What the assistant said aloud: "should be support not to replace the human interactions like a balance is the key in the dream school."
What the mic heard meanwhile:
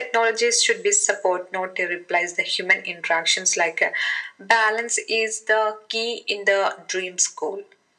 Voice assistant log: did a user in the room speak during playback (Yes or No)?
No